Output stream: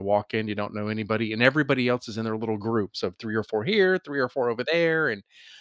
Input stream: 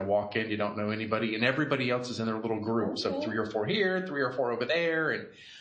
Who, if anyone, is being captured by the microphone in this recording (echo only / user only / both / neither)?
both